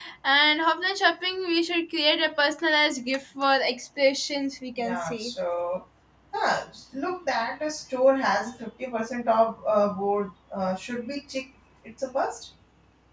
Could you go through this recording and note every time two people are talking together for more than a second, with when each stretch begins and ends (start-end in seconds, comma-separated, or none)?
none